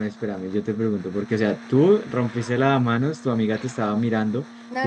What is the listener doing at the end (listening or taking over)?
taking over